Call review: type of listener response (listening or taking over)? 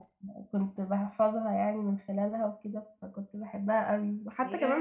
listening